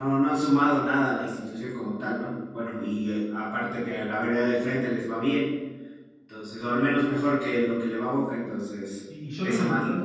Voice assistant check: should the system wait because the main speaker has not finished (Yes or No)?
No